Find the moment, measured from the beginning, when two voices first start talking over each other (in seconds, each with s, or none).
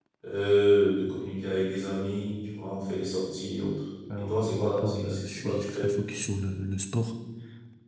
4.1 s